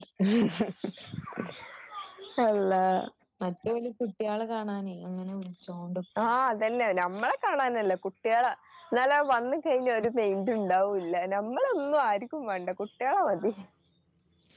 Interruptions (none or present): none